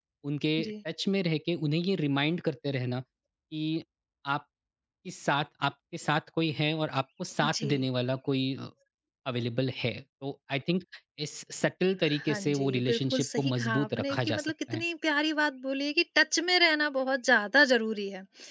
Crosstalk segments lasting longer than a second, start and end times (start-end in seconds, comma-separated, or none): 12.1-14.8